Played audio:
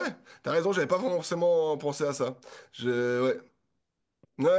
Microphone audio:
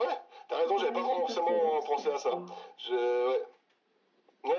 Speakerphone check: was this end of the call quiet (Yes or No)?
No